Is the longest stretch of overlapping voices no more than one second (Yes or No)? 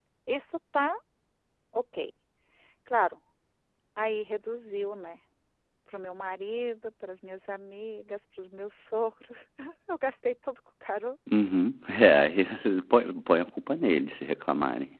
Yes